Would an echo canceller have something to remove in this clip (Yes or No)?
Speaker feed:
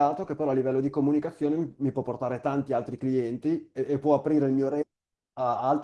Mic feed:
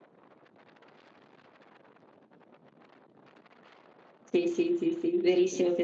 No